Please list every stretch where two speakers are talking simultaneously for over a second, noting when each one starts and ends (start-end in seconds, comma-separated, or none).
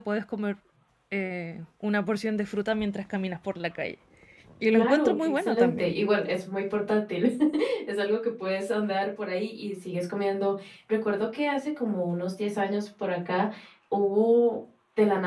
4.7-5.9